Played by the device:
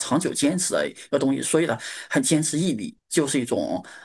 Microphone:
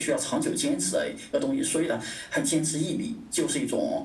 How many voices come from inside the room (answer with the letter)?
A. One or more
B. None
B